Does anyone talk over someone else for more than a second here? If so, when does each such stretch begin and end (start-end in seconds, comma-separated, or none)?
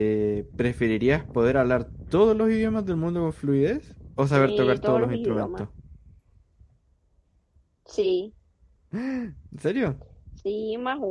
4.4-5.7